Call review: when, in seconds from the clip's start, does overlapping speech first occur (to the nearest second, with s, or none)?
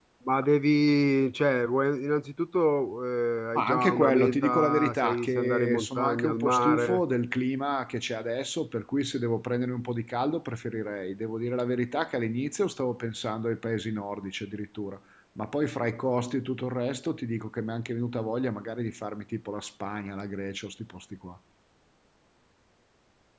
4 s